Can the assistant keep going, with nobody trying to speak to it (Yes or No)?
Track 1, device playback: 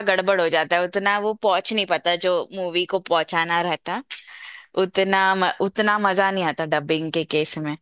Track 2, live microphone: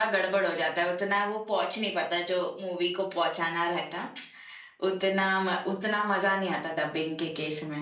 Yes